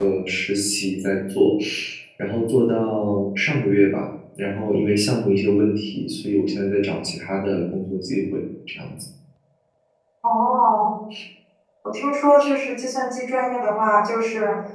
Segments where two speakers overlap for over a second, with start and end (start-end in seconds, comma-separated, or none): none